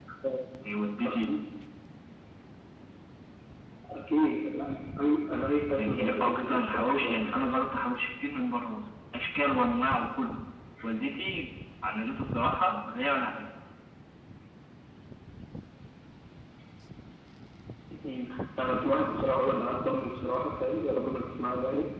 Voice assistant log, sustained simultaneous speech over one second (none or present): present